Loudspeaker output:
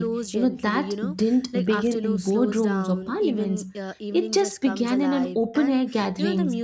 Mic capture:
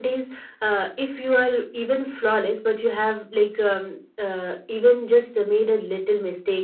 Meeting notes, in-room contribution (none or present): present